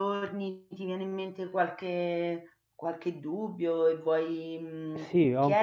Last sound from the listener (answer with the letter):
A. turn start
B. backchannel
A